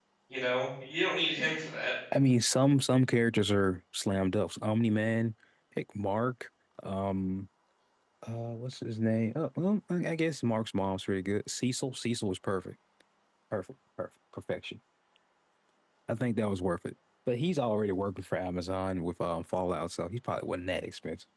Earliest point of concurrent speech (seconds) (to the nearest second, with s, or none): none